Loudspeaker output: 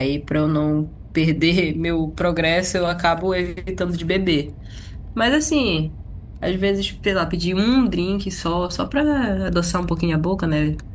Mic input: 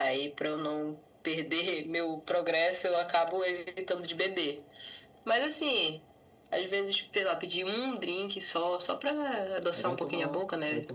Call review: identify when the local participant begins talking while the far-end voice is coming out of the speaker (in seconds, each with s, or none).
9.7 s